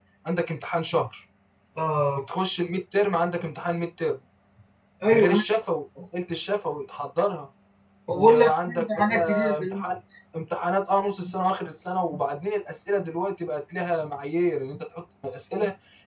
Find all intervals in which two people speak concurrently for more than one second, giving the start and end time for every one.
8.1-9.9

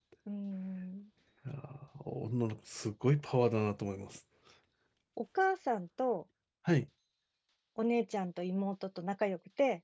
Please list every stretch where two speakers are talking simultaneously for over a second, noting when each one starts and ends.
none

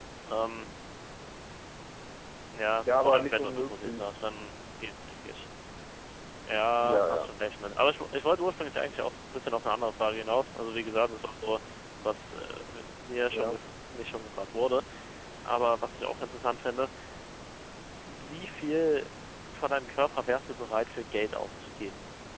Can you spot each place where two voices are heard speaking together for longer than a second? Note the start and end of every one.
2.8-4.2

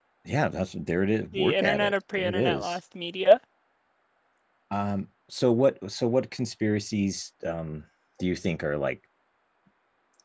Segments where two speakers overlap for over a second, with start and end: 1.3-2.8

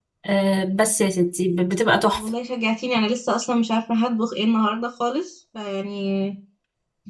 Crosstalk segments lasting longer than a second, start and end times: none

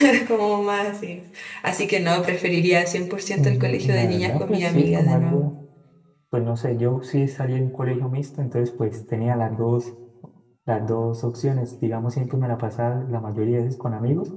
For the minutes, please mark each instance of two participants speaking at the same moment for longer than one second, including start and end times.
3.3-5.5

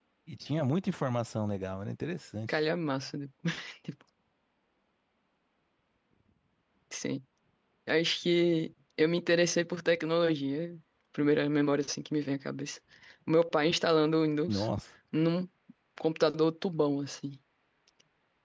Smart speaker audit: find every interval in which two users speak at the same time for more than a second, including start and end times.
none

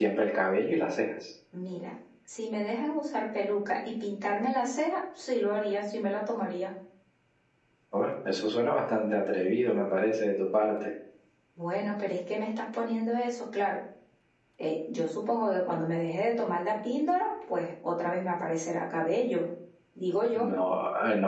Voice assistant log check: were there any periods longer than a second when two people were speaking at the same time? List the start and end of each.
none

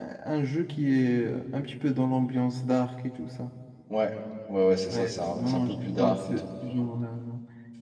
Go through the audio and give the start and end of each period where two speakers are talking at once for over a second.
4.9-6.5

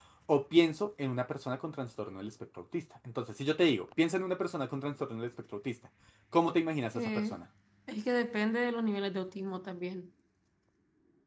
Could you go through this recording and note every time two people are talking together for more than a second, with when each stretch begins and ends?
none

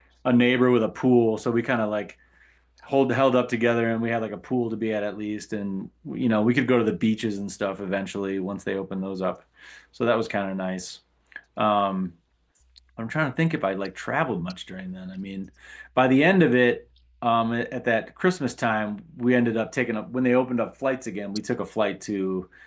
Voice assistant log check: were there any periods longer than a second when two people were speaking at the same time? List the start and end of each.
none

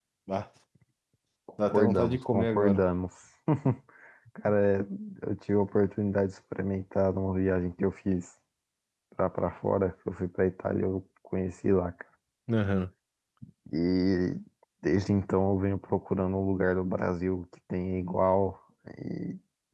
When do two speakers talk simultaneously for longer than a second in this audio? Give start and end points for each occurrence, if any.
1.6-2.8

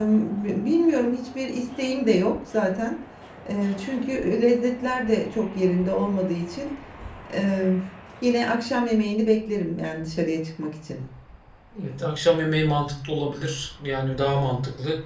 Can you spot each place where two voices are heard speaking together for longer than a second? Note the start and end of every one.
none

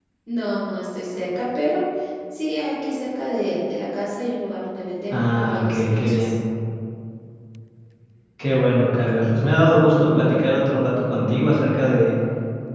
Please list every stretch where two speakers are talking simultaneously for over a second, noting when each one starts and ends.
5.1-6.3

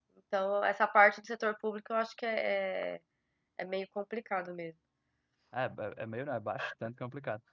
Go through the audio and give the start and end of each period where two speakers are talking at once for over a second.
none

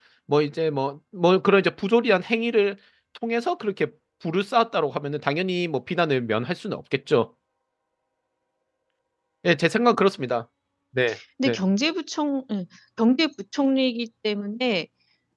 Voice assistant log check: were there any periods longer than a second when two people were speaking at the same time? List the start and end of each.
none

